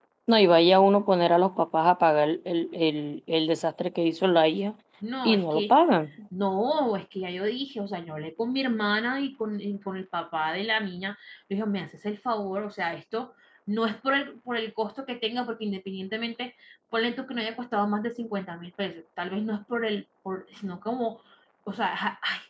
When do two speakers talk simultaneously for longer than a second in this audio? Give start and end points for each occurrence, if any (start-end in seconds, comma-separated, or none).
none